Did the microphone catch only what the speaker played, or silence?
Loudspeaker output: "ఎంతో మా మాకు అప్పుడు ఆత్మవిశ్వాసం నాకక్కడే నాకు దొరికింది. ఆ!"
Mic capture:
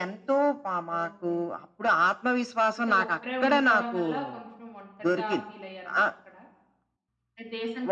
No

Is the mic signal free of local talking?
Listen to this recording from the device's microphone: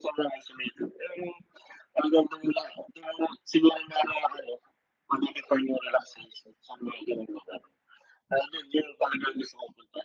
Yes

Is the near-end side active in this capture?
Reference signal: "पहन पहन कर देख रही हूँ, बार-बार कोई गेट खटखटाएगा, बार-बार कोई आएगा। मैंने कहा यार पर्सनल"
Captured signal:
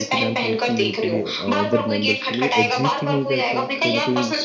Yes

